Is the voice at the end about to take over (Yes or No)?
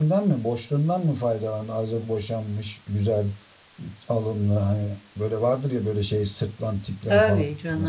Yes